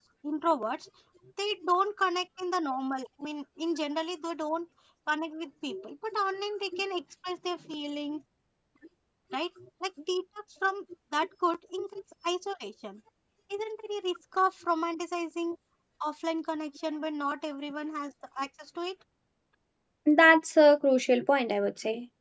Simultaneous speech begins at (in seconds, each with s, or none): none